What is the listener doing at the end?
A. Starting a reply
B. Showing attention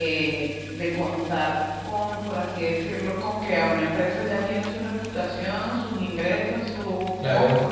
B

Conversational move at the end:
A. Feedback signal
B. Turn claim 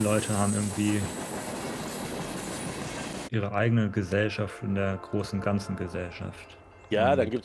B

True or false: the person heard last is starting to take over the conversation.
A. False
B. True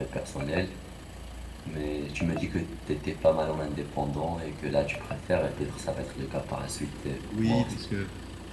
B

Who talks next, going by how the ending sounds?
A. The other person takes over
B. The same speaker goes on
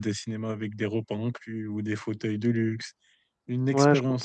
A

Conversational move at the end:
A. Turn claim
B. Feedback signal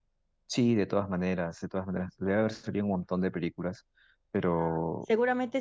A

